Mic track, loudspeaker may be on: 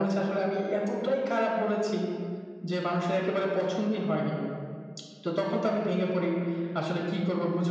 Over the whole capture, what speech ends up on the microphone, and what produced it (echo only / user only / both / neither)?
echo only